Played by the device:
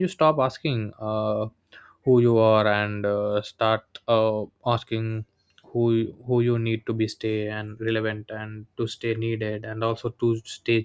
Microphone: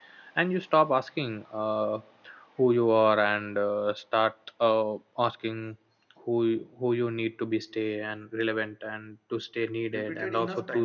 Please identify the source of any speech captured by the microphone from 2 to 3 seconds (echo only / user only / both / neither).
echo only